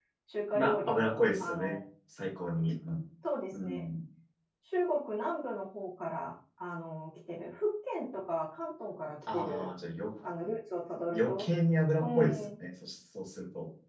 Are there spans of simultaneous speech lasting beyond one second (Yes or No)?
Yes